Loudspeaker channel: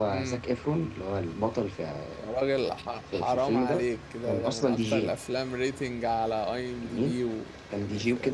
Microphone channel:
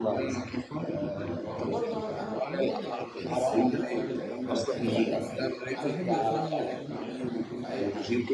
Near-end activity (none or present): present